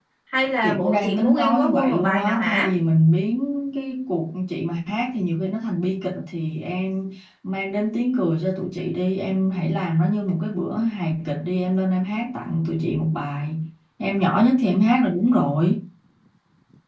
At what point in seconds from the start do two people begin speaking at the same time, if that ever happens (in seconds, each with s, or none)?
0.6 s